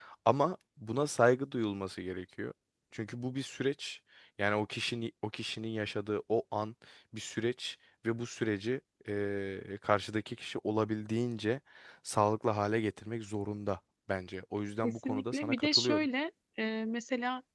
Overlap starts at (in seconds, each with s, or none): 14.8 s